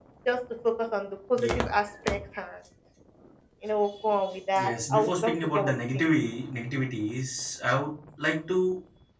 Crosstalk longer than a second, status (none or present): present